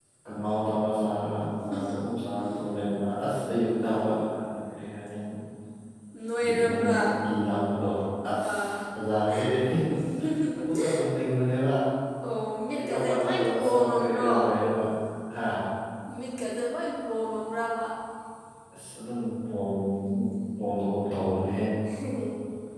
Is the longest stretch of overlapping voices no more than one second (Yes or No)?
No